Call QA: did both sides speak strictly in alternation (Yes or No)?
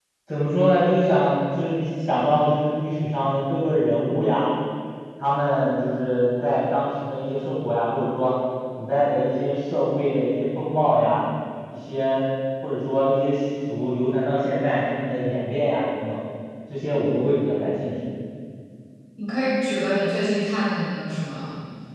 Yes